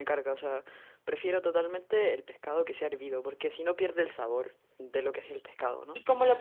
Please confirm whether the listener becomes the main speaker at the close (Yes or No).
Yes